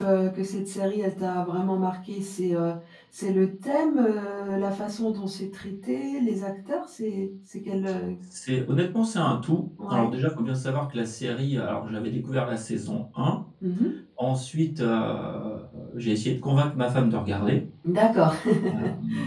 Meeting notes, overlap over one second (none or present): none